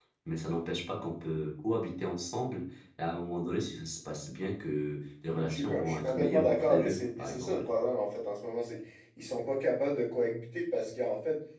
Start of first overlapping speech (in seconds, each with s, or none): 5.3 s